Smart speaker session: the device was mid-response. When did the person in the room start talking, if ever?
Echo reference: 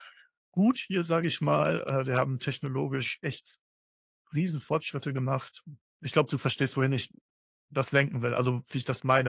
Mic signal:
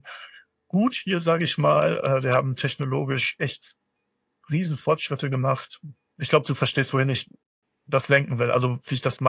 none

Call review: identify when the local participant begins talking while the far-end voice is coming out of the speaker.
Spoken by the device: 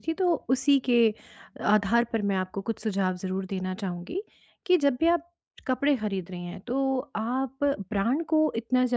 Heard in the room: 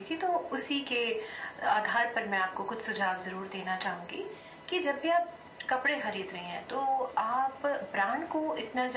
none

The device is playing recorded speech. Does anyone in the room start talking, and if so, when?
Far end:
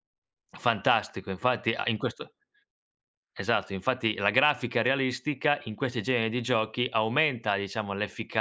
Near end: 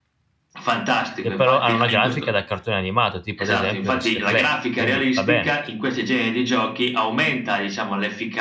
1.2 s

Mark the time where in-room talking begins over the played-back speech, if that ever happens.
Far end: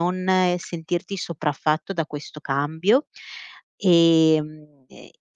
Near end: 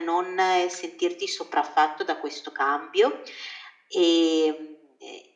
none

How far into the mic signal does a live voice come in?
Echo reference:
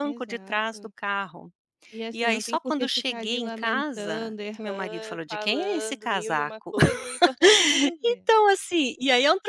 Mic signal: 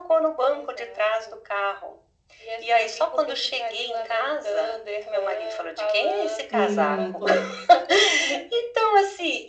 6.6 s

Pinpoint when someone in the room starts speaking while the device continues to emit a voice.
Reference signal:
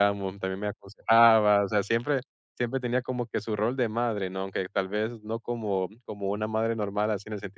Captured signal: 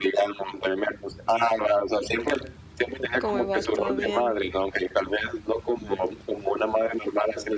3.2 s

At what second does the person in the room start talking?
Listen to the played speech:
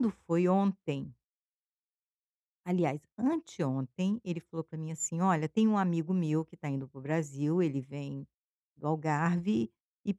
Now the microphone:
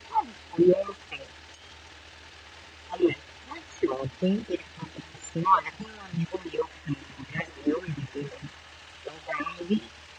none

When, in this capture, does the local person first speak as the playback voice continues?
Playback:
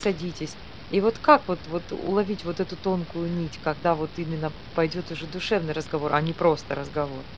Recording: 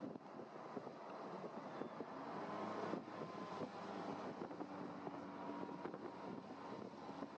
none

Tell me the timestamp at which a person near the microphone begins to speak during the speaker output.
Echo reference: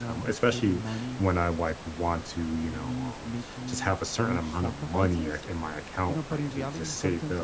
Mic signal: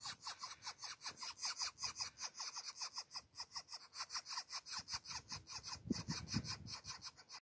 none

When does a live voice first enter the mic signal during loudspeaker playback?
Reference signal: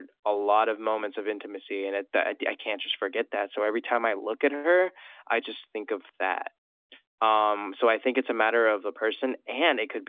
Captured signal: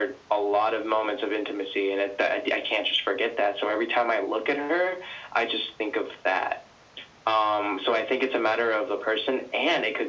none

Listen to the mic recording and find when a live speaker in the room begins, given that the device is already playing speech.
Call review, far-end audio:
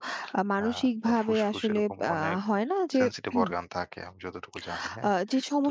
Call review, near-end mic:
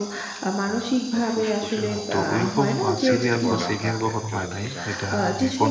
1.8 s

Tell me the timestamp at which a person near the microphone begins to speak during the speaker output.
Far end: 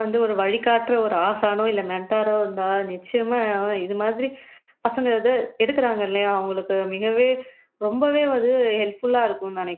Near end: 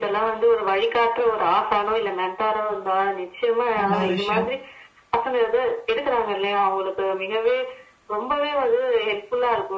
3.8 s

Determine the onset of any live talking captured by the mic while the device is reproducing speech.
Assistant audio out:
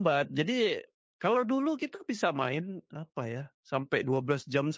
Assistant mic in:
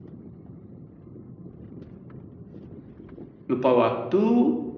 3.5 s

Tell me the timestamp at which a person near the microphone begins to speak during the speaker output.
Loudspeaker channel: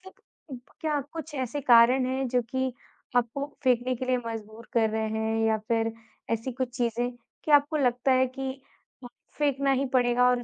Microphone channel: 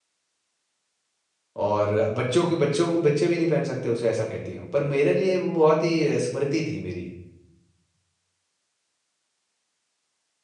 1.6 s

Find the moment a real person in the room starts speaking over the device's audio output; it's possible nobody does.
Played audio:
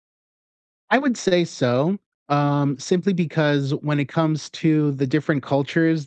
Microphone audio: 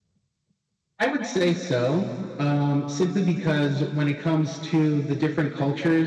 none

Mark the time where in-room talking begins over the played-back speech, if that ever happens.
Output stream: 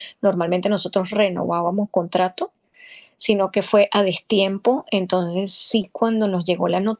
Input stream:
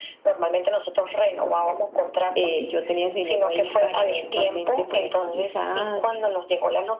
2.3 s

